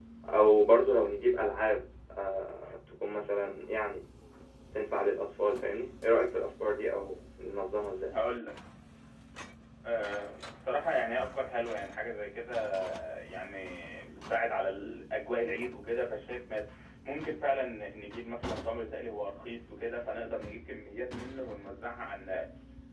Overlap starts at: none

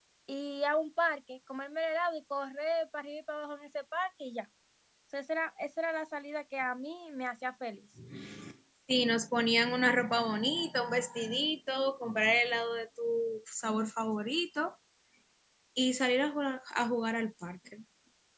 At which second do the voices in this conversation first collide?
none

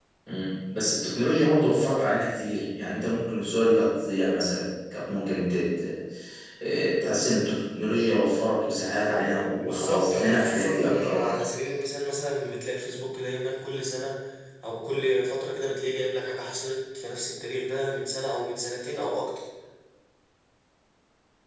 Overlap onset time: 9.6 s

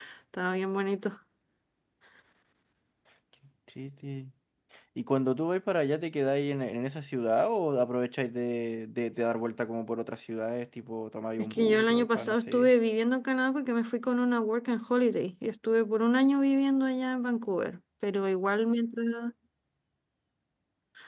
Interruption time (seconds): 11.4 s

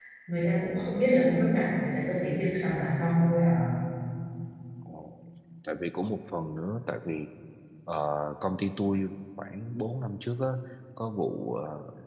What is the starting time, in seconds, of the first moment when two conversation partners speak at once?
none

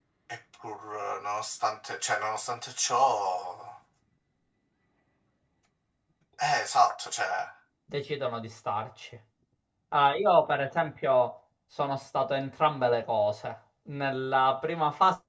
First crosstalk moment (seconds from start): none

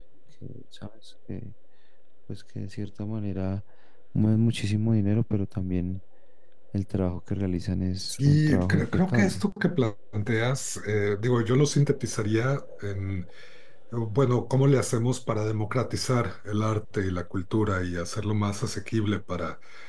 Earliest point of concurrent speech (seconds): 8.1 s

